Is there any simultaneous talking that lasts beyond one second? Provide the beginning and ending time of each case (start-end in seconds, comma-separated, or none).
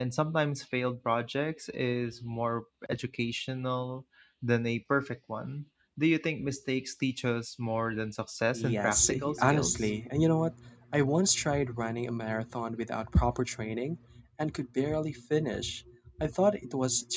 8.5-9.9